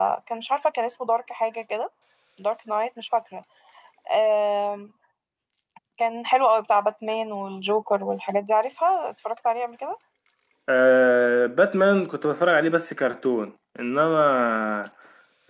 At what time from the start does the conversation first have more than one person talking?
none

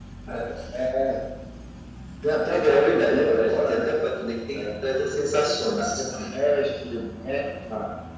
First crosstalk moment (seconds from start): 2.5 s

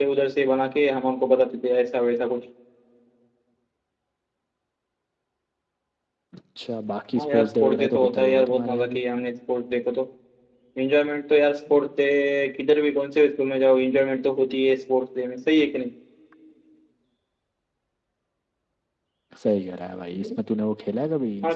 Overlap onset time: 7.2 s

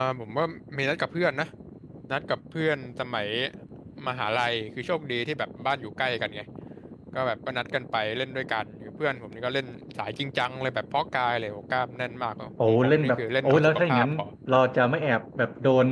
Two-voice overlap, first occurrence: 12.6 s

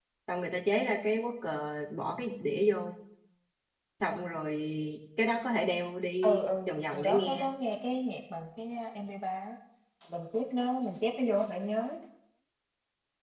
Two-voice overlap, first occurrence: 6.2 s

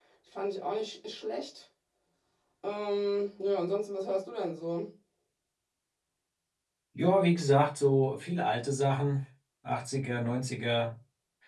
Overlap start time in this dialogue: none

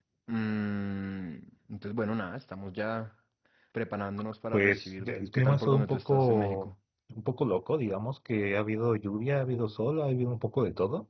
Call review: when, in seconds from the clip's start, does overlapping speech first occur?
4.5 s

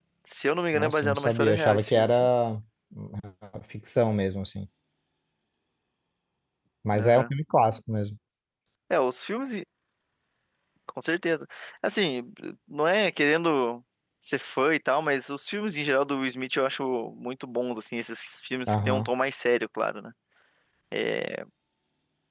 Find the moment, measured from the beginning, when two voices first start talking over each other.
0.7 s

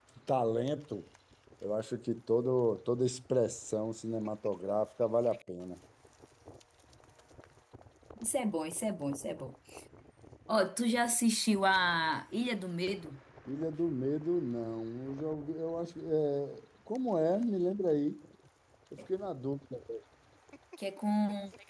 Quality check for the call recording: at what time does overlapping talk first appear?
none

